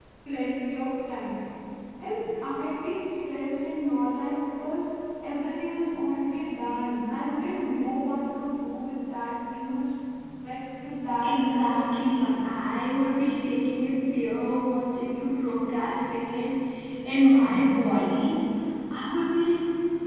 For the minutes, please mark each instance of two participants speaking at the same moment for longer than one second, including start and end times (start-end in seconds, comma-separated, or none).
11.2-12.4